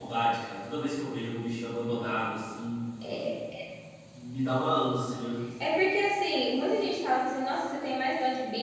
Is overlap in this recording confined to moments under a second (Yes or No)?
Yes